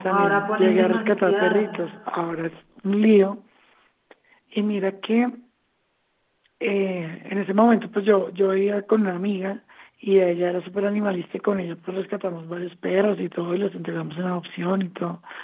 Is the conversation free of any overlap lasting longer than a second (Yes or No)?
No